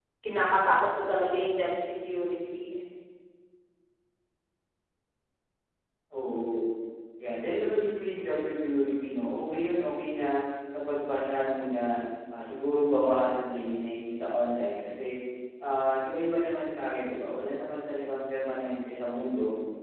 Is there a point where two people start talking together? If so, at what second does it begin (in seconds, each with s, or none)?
none